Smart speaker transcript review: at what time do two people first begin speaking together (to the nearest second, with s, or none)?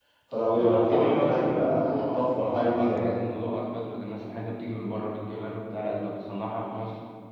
1 s